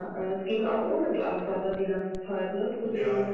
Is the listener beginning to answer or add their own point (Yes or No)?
Yes